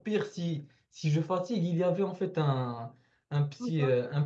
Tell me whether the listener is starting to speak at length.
No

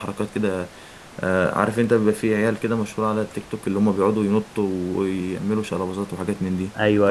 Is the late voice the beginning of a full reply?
Yes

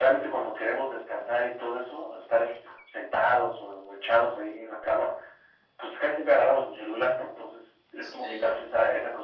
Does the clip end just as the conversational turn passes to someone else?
No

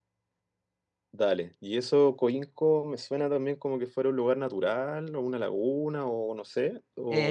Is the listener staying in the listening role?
No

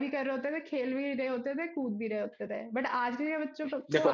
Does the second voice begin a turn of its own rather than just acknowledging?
No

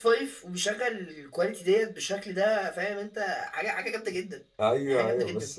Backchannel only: No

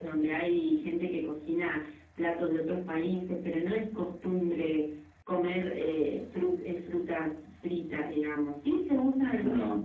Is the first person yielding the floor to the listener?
No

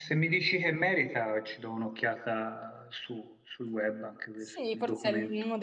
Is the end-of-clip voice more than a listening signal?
Yes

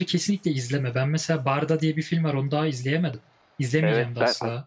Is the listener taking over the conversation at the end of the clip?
Yes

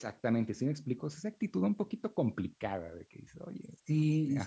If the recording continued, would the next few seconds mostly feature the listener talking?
Yes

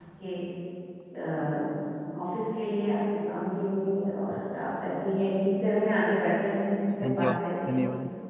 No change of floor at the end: No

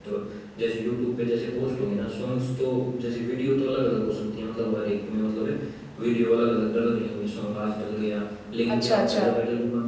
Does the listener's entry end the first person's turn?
No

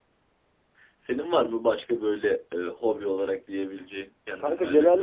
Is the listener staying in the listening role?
No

